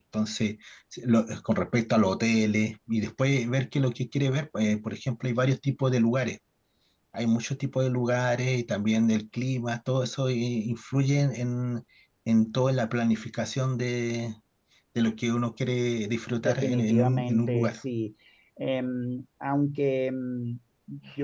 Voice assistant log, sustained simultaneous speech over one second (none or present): present